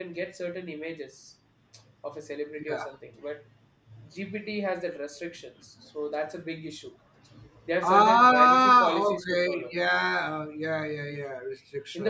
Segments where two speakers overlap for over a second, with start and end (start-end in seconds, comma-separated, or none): 7.8-9.7